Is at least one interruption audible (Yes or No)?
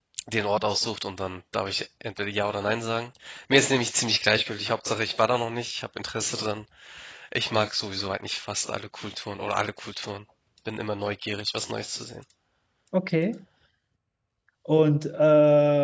No